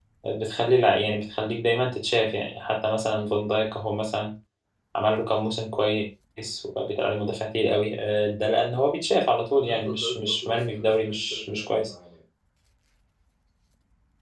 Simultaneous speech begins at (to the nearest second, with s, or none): 9 s